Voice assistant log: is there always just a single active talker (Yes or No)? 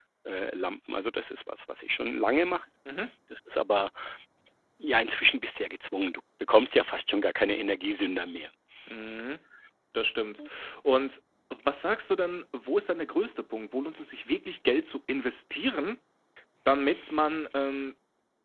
Yes